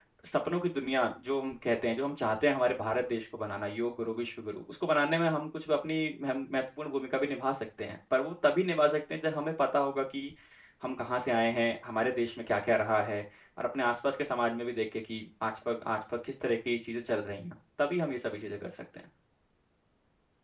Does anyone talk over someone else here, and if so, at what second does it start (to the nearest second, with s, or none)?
none